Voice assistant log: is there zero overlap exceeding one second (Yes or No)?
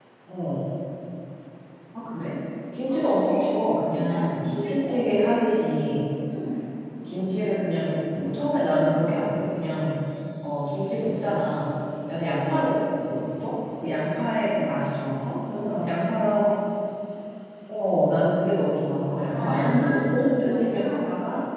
No